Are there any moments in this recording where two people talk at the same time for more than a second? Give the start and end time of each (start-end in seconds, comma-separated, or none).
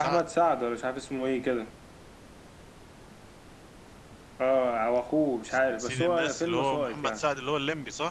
5.8-7.2